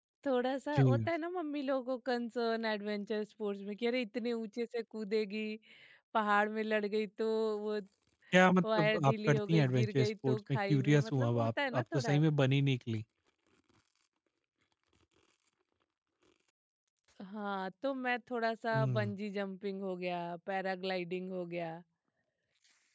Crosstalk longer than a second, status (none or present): present